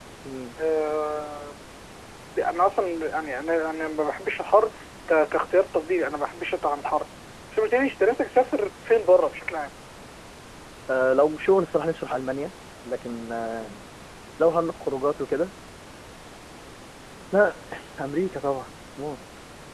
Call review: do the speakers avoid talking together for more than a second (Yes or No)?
Yes